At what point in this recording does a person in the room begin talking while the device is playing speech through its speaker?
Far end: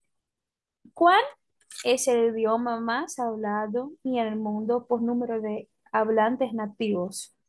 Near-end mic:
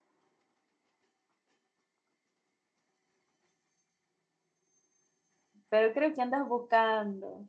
5.7 s

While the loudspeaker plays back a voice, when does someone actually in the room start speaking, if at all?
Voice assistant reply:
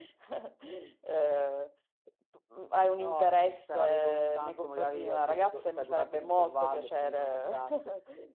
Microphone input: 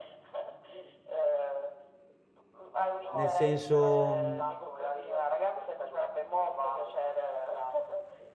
3.1 s

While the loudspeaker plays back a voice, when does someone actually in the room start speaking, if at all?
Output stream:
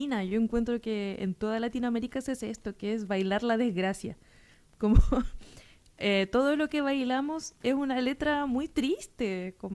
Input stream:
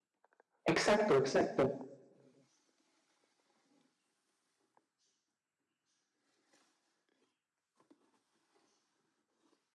0.7 s

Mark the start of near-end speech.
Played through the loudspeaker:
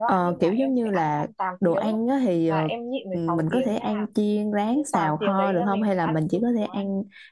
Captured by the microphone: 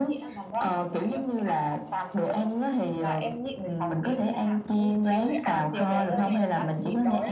4.7 s

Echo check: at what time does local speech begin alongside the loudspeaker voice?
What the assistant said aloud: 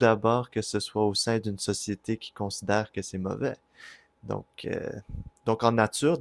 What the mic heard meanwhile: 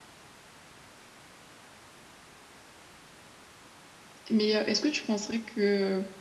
4.3 s

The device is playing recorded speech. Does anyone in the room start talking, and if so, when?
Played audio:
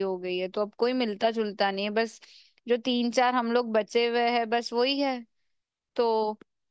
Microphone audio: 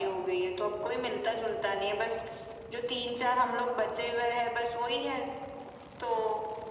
none

